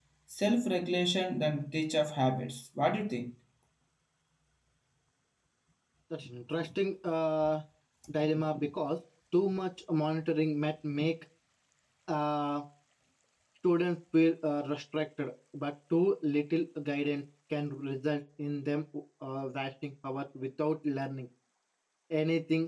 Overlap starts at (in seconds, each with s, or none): none